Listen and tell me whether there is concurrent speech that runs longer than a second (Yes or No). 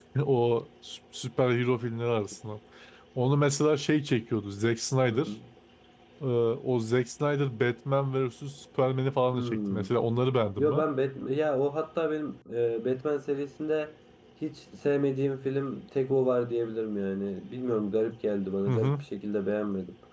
No